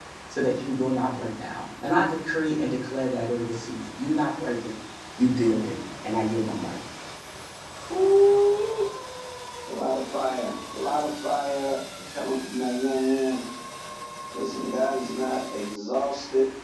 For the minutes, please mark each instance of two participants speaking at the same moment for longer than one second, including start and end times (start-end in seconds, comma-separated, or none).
none